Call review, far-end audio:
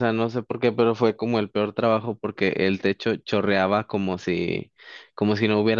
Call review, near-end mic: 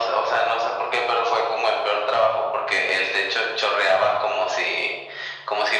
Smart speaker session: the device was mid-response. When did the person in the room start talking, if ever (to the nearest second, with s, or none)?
none